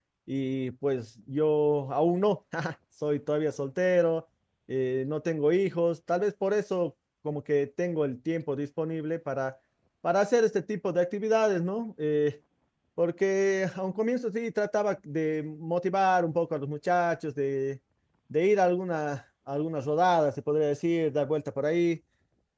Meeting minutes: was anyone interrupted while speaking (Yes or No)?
No